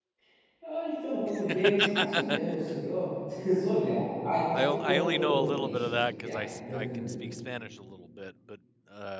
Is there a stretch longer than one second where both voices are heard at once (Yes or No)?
Yes